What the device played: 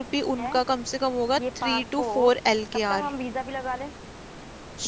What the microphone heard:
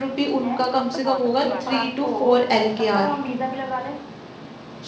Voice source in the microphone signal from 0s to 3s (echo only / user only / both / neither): both